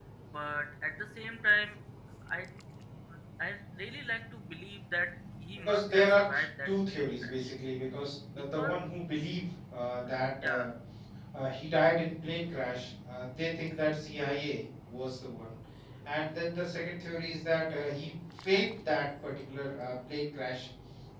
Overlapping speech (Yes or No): Yes